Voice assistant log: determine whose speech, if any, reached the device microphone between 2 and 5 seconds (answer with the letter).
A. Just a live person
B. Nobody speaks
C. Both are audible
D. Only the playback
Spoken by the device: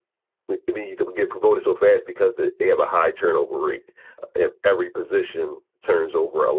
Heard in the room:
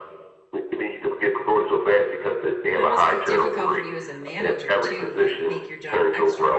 C